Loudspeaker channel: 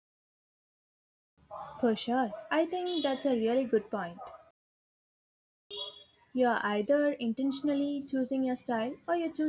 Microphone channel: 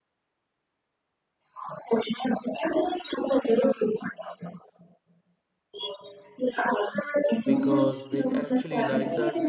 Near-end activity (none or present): present